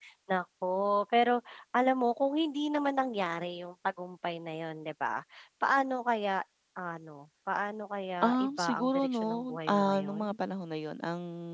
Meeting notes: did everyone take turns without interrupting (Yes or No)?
No